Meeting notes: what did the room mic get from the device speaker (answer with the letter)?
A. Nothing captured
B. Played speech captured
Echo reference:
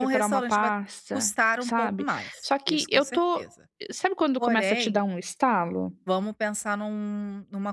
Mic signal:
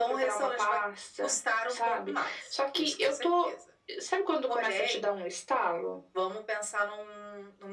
B